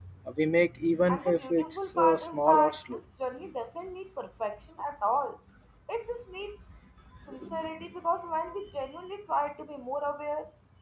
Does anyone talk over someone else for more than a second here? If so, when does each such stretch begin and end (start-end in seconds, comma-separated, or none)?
1.1-3.0